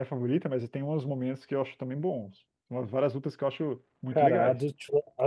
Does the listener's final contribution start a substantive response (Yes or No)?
Yes